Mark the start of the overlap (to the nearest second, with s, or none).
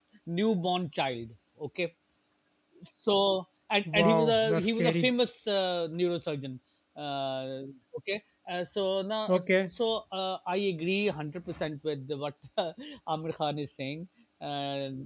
4 s